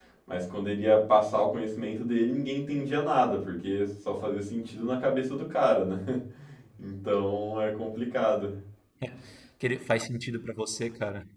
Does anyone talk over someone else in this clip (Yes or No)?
No